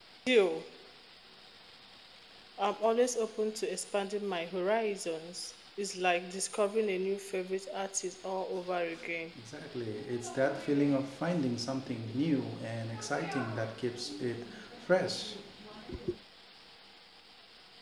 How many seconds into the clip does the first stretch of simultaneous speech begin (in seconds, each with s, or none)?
none